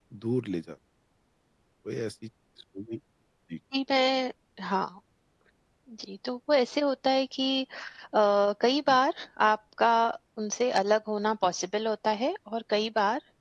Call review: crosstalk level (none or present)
none